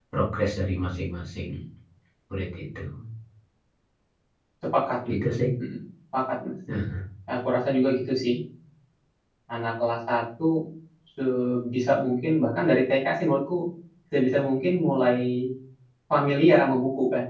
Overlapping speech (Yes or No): No